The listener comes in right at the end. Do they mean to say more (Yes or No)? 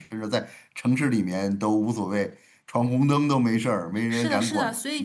Yes